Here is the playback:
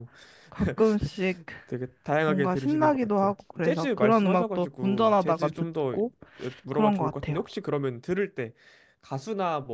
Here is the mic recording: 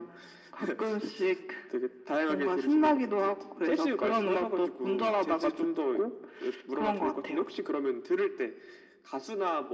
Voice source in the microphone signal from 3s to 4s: echo only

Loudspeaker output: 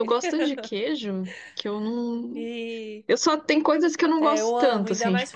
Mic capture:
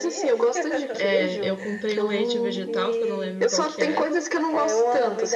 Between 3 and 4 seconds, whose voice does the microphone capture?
both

